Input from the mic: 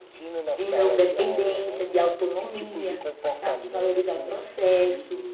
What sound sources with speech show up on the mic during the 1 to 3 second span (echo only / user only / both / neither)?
both